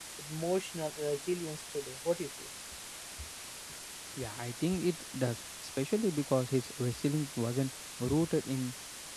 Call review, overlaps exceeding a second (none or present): none